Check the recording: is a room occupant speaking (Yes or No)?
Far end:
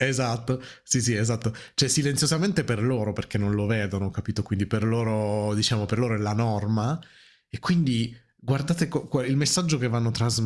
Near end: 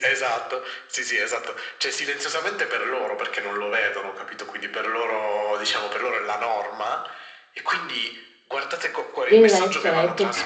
Yes